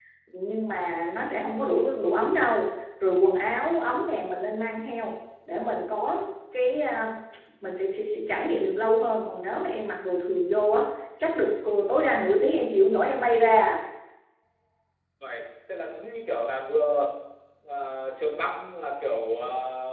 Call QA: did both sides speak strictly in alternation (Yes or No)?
Yes